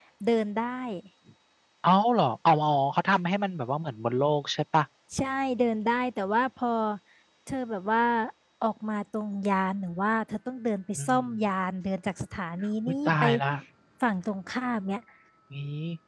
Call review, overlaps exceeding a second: none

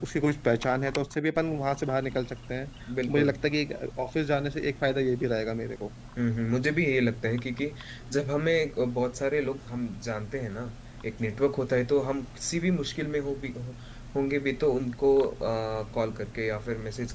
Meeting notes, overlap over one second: none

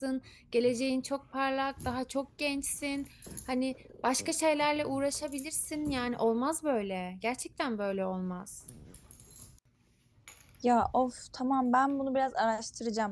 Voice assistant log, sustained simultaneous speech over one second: none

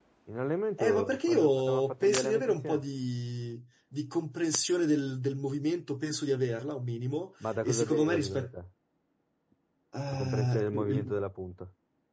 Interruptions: present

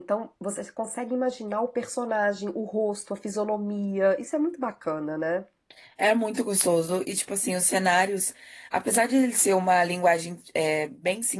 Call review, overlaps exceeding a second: none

